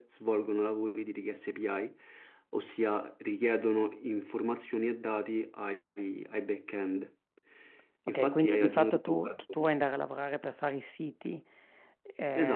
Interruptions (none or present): present